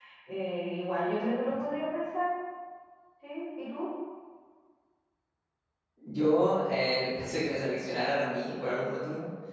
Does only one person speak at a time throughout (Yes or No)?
Yes